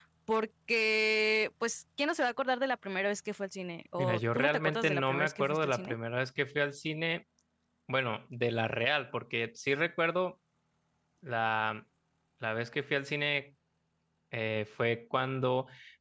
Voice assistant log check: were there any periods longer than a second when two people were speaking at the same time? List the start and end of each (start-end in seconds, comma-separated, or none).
4.0-5.9